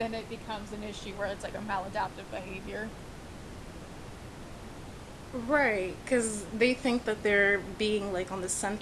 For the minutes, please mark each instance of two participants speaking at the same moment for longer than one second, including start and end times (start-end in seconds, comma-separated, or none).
none